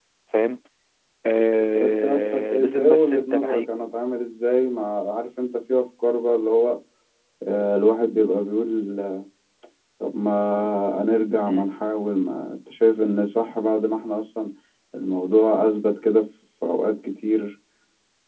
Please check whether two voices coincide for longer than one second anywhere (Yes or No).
Yes